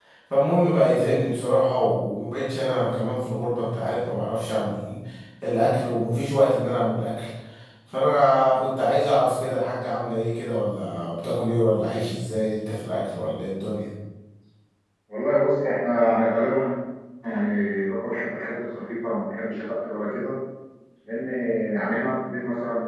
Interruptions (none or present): none